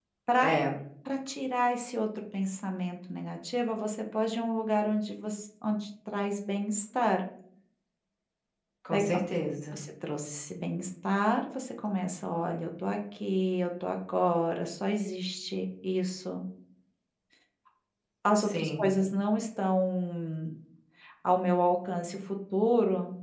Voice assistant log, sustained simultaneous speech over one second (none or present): none